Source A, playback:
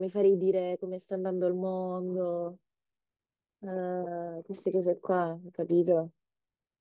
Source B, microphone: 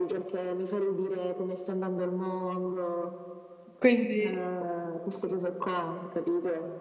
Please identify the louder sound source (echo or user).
user